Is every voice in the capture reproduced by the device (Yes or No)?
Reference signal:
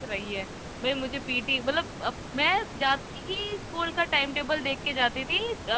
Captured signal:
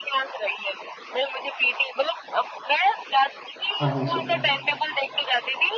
No